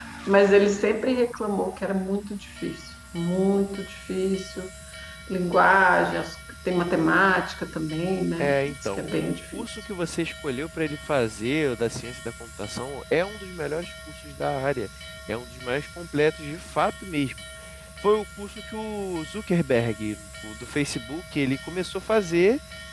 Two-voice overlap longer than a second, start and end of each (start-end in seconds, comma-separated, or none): 8.4-9.6